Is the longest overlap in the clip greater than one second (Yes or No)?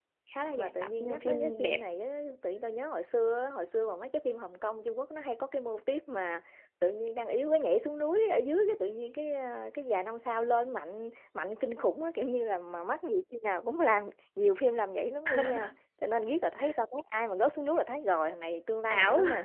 Yes